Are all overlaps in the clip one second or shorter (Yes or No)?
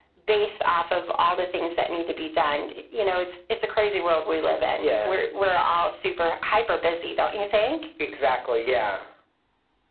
Yes